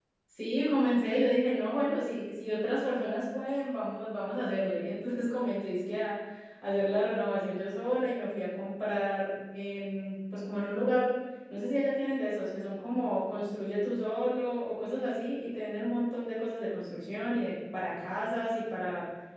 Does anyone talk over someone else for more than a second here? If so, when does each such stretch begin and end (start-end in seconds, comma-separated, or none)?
none